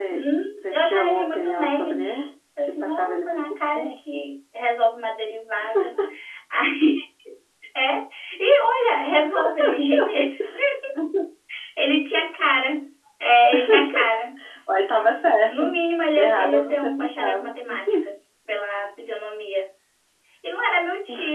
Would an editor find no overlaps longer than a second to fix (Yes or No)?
No